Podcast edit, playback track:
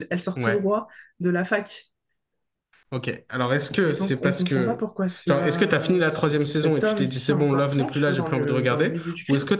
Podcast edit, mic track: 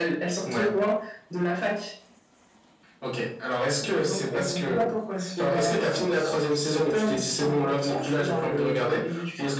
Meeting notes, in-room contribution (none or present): none